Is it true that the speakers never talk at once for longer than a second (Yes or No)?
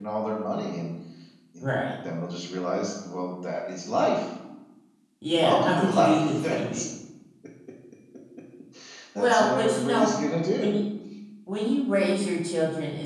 No